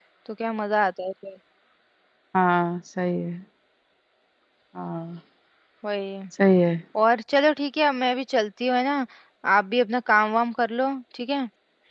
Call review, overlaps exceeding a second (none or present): none